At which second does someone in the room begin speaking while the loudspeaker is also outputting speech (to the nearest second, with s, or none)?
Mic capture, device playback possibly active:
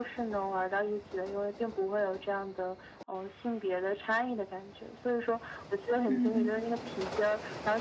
6 s